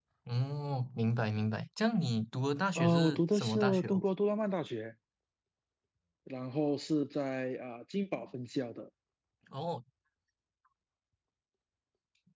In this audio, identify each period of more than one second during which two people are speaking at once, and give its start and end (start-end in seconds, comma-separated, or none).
2.8-4.0